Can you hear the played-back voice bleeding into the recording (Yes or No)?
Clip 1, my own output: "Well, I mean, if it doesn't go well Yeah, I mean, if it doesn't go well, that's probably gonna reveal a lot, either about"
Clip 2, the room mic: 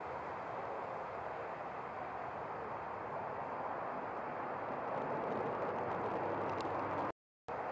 No